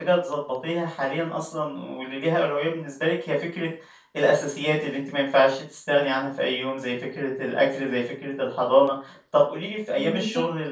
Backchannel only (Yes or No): Yes